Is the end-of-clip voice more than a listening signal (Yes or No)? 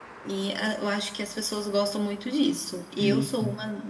No